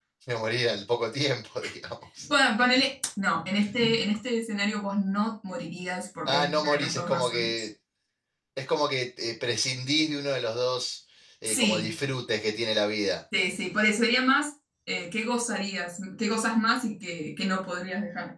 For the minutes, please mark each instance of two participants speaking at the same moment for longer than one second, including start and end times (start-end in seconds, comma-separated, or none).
6.2-7.5